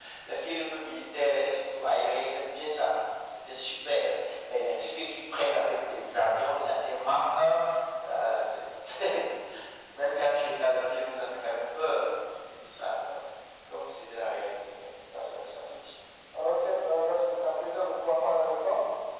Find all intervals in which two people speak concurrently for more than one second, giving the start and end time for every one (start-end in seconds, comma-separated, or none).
none